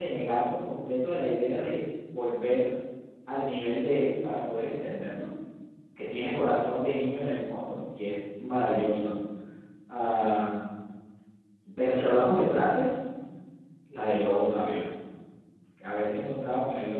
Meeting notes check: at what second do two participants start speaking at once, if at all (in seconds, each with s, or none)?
none